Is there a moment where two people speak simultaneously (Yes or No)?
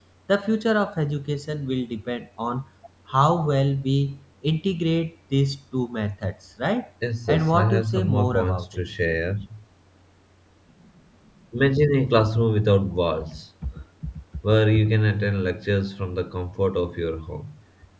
Yes